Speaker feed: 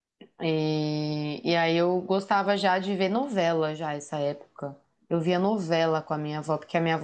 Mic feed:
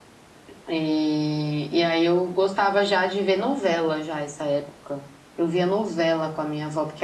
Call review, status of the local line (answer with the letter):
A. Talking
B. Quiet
B